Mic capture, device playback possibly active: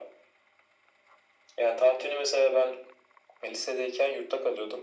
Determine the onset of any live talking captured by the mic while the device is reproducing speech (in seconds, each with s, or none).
none